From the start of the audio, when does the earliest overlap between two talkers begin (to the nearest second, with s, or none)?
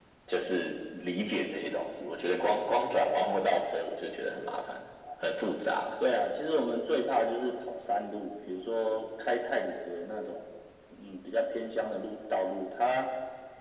none